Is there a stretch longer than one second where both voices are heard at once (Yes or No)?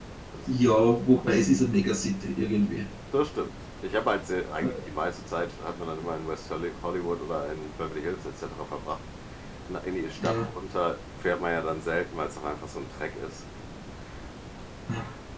No